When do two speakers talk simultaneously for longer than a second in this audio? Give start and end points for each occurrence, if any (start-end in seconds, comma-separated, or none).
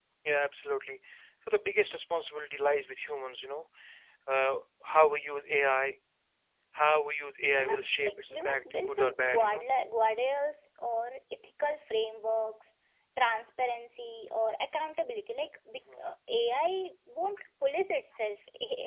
7.5-9.7